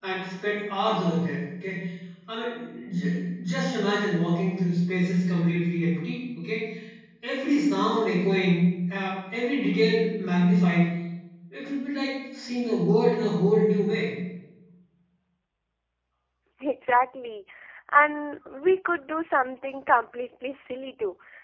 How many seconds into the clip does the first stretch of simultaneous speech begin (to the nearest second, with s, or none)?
none